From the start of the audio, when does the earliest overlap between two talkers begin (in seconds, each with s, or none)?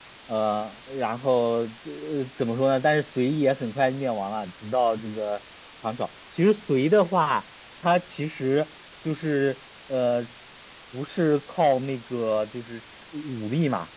none